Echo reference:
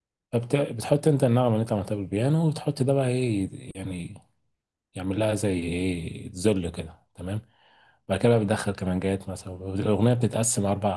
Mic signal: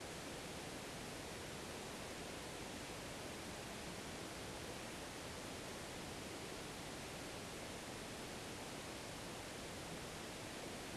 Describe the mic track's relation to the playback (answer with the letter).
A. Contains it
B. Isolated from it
B